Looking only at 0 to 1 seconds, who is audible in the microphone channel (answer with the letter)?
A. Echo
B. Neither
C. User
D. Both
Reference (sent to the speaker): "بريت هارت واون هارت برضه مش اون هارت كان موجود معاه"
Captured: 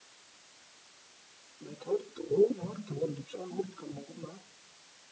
B